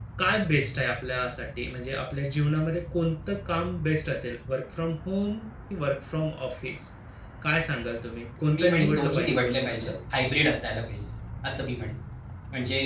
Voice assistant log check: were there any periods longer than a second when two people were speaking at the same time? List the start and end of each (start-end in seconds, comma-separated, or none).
8.4-9.9